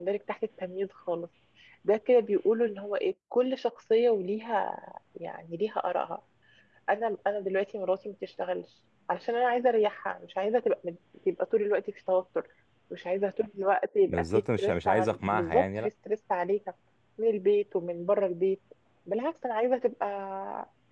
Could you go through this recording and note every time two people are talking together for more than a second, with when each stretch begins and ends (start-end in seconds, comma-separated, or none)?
14.1-15.9